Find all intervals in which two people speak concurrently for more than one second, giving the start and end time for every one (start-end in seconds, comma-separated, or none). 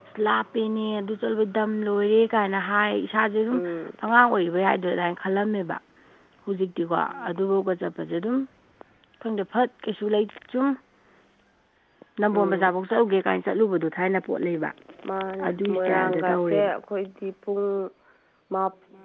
15.5-16.7